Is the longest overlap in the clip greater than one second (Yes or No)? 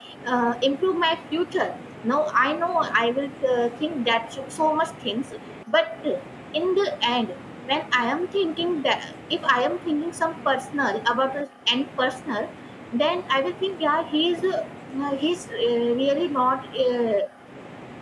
No